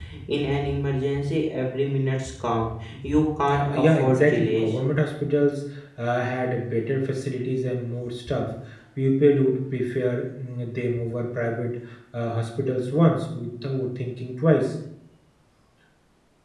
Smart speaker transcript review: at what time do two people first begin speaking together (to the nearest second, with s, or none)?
3 s